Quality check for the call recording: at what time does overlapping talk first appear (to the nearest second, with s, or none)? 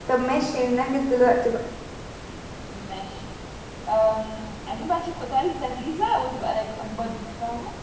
none